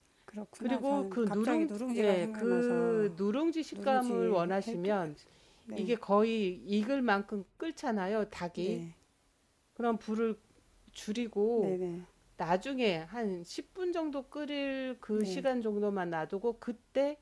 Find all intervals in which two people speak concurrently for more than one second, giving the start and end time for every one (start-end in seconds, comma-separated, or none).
0.6-3.1, 3.7-4.9